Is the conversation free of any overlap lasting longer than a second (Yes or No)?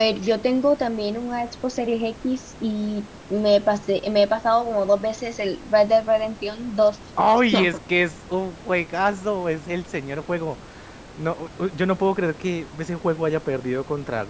Yes